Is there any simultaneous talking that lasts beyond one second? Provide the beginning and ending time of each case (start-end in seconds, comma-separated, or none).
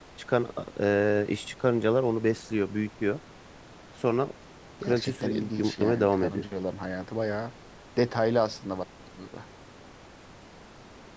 4.8-6.4